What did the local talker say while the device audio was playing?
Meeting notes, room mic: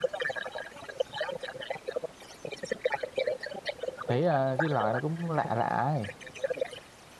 thấy ờ, cái lời nó cũng lạ lạ ấy

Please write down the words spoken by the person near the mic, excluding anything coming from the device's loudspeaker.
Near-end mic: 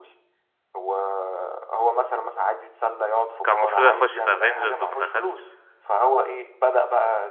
كان المفروض يخش في افنجرز وما دخلش

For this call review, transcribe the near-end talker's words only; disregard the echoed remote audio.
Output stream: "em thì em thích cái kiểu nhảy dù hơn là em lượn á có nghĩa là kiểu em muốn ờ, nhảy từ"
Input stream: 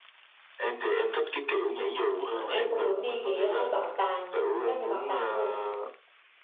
À, Em có muốn đi cái à, bảo tàng các cái bảo tàng không?

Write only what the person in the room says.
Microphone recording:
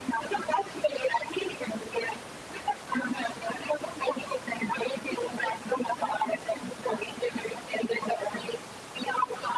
none

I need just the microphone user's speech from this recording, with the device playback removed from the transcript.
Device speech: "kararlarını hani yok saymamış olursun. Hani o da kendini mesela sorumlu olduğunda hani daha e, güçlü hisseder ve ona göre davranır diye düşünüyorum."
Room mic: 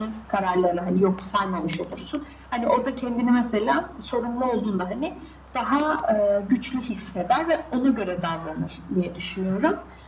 none

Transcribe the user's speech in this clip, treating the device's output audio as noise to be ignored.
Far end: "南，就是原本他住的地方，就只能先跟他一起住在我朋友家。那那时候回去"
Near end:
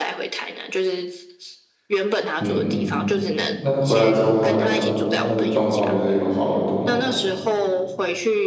嗯，那回来之后他的他的状况就是有好很多嘛，

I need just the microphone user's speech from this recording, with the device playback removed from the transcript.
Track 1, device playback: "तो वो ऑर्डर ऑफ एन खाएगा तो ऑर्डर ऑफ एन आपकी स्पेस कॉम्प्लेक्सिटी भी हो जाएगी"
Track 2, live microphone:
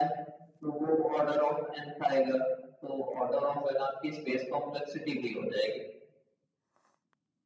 none

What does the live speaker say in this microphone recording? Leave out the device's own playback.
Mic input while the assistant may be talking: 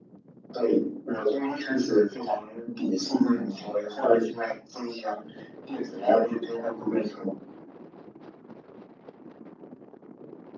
none

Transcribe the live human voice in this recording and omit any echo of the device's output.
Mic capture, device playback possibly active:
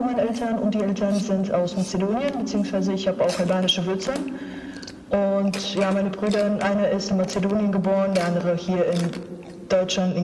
none

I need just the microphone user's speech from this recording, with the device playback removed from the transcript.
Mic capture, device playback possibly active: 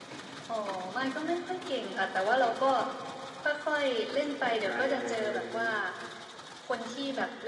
จัดการยังไงอะไรอย่างนี้

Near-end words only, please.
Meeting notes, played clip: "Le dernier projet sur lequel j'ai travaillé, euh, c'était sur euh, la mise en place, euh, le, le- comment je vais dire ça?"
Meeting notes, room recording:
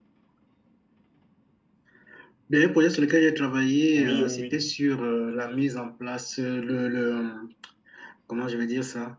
Oui, oui, oui.

